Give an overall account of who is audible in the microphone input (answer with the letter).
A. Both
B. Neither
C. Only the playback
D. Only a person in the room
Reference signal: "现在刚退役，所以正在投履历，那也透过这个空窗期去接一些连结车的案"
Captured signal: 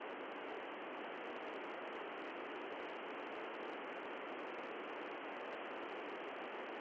B